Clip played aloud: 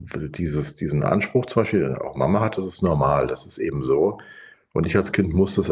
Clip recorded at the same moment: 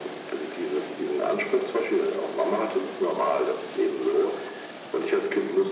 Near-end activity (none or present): none